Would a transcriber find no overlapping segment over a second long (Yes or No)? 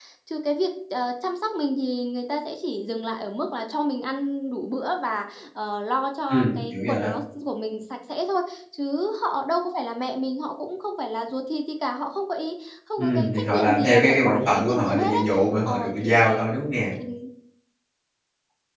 No